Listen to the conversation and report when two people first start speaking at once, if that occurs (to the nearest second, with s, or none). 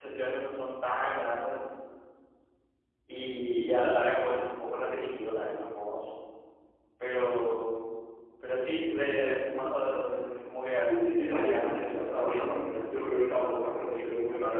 11 s